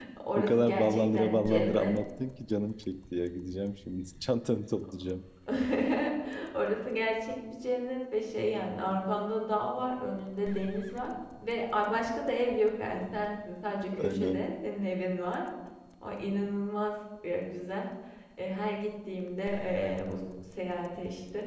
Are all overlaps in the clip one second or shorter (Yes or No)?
No